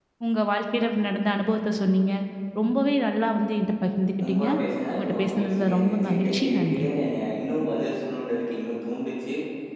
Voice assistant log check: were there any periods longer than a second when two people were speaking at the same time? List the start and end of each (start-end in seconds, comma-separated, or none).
5.0-6.9